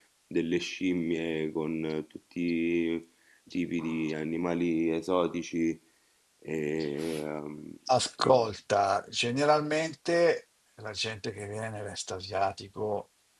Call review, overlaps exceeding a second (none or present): none